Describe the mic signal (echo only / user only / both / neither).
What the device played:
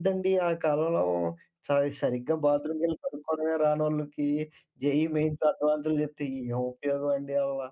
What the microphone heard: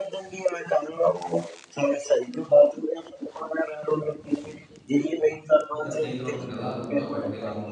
both